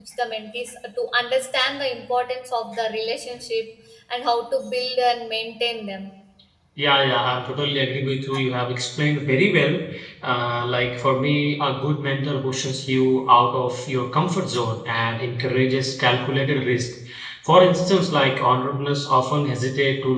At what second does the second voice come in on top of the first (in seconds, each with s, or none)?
none